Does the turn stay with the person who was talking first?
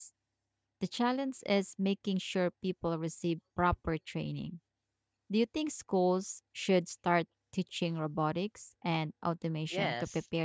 No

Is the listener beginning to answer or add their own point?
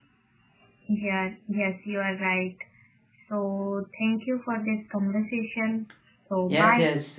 Yes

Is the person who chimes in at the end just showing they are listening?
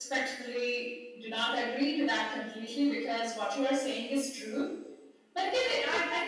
No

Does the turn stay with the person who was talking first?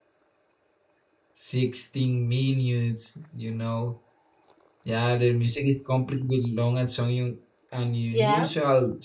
Yes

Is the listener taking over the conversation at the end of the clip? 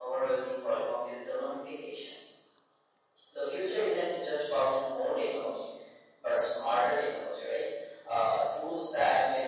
No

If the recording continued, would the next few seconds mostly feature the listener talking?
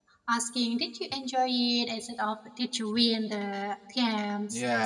Yes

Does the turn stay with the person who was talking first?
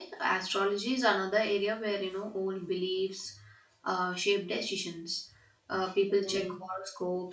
Yes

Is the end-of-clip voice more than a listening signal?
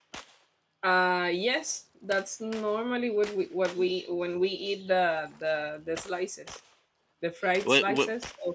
No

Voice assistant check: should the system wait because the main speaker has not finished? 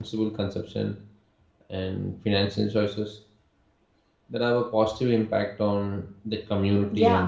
No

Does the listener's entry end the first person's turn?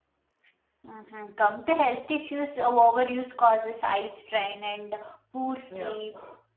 No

